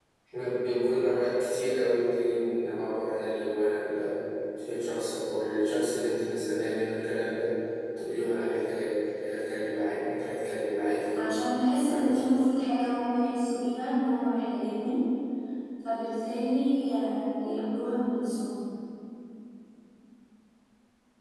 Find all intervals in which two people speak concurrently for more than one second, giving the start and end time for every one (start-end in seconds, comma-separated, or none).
none